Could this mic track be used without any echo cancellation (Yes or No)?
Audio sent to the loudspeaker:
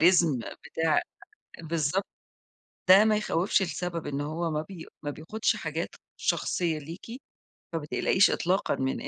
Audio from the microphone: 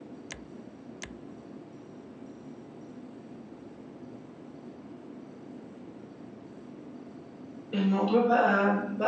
Yes